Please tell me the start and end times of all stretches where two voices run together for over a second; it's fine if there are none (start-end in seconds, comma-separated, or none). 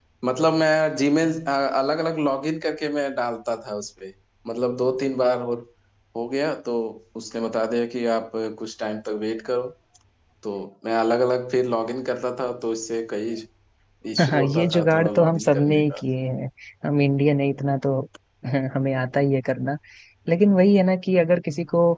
14.3-16.0